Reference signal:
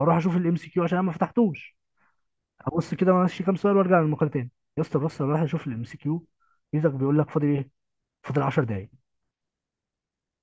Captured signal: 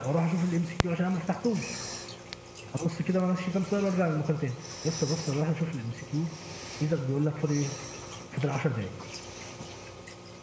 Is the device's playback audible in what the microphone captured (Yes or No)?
Yes